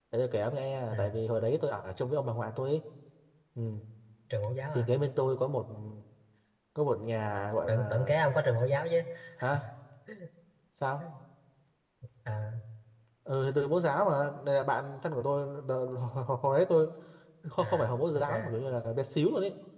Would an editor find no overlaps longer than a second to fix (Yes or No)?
Yes